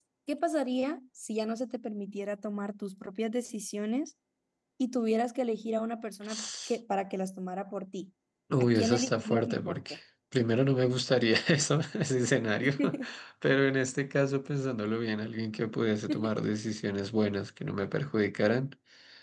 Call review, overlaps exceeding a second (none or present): present